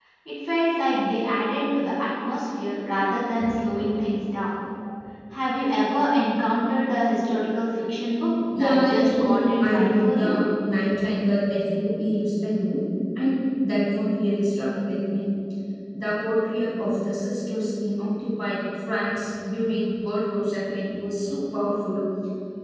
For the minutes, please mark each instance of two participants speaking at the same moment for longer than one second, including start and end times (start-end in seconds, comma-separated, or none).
8.5-10.3